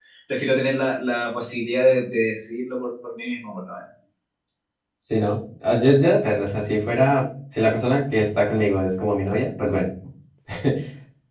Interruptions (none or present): none